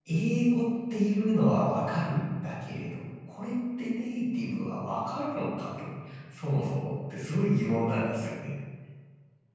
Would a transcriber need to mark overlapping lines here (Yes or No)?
No